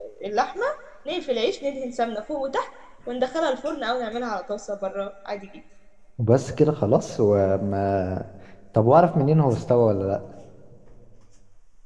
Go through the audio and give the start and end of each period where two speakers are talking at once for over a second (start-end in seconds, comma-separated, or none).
none